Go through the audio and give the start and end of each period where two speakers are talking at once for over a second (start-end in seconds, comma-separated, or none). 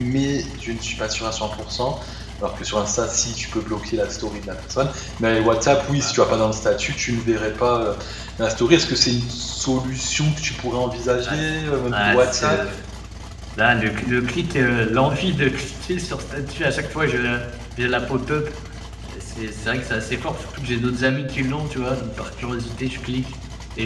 11.2-12.6